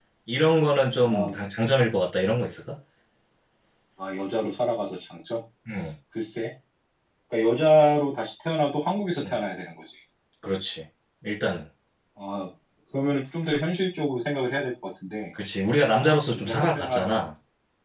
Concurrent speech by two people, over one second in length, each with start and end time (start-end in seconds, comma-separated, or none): 15.8-17.2